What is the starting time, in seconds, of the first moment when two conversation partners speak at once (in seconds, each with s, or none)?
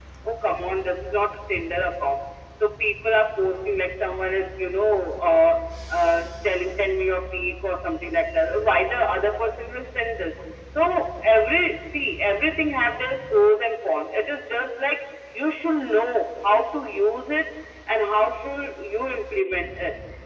none